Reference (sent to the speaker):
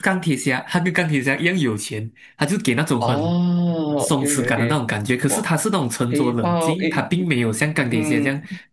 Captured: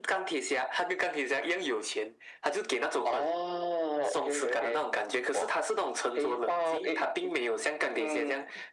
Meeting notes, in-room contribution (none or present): none